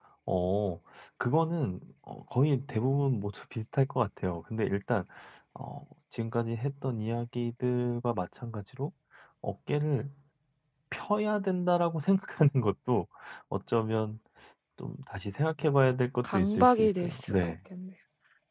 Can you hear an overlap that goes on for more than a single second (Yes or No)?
Yes